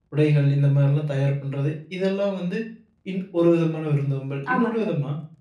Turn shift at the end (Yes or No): No